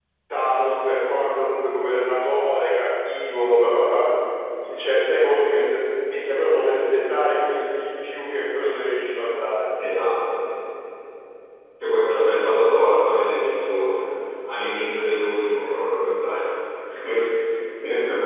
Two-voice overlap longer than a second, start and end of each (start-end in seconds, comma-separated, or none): none